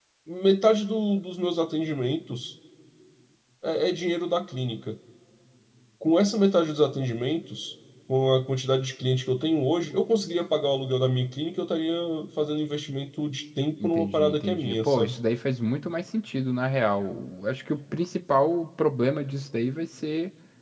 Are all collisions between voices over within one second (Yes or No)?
No